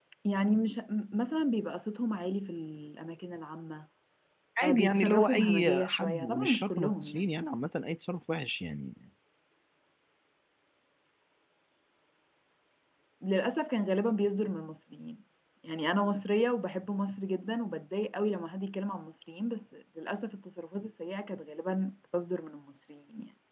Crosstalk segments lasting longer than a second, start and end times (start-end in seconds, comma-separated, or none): 4.6-7.3